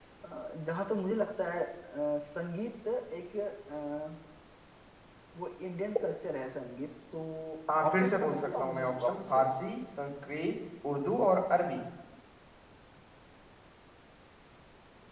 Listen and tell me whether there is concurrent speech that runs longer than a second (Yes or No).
Yes